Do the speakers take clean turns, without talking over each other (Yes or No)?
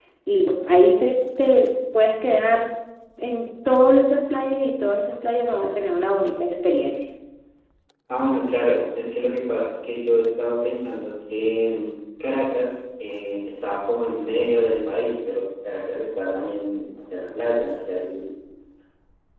Yes